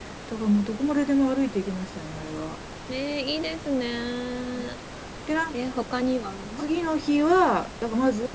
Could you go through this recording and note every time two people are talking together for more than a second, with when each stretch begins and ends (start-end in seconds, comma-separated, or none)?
none